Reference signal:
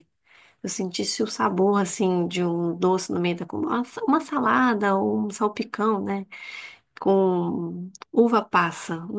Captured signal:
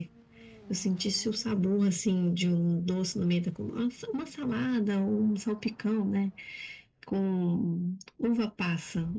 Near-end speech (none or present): none